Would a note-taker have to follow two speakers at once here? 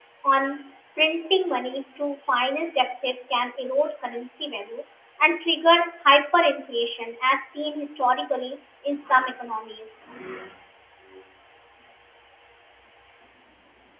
No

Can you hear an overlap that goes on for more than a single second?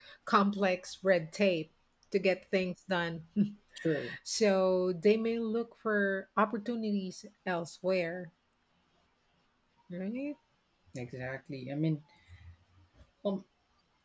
No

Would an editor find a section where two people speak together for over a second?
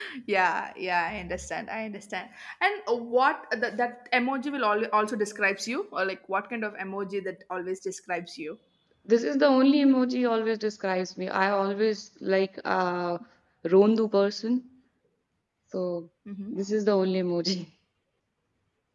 No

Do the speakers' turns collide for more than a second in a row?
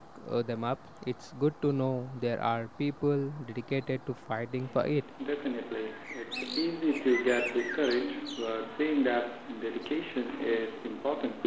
No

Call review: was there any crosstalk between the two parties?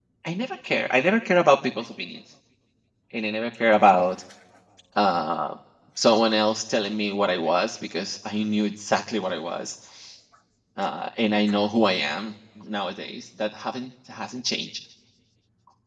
No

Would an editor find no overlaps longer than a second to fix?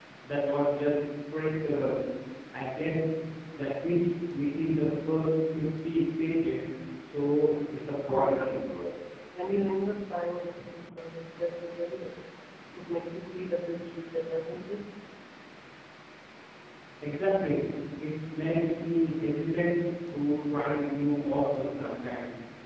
Yes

